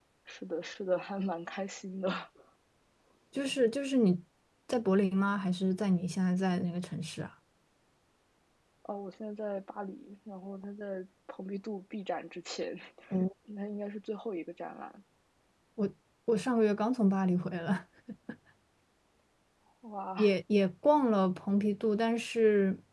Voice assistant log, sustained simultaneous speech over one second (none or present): none